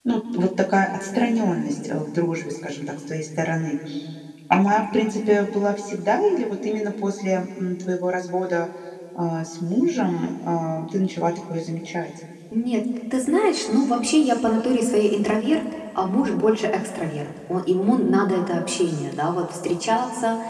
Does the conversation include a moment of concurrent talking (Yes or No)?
No